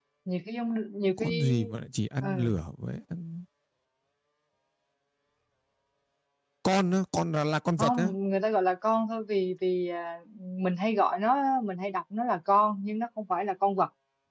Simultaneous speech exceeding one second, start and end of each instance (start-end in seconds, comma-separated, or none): none